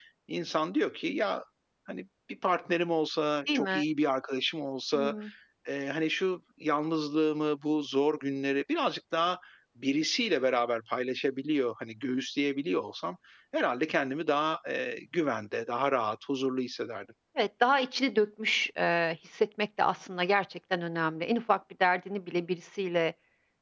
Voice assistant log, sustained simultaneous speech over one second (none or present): none